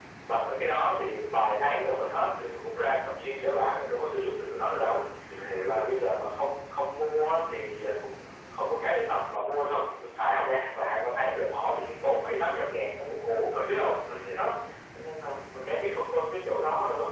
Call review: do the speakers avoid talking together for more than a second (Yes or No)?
Yes